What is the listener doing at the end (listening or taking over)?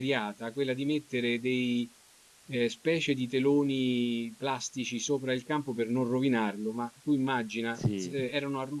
listening